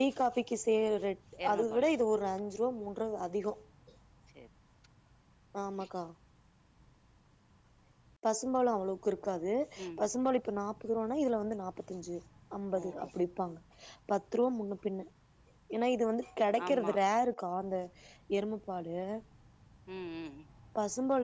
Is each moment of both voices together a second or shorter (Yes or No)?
Yes